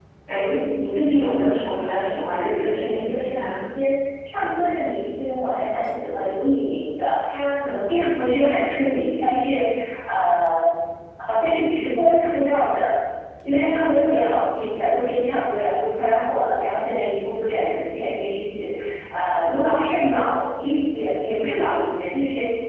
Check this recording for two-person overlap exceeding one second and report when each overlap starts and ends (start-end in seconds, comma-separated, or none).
1.8-3.5